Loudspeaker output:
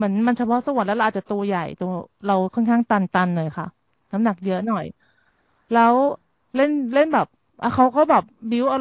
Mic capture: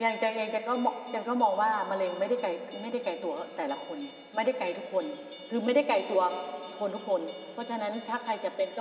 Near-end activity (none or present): present